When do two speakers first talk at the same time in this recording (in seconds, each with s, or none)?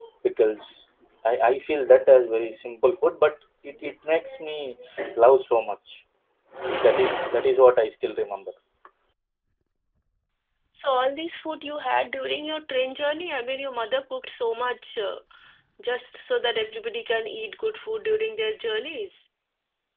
none